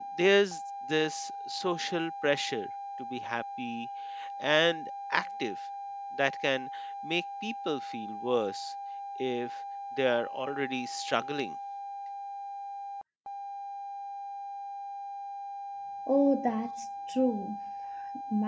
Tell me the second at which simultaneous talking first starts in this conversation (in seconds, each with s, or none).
none